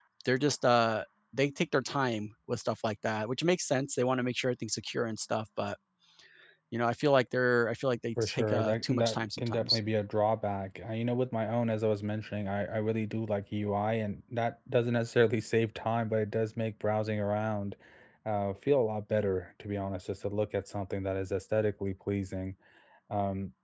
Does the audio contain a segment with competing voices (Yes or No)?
Yes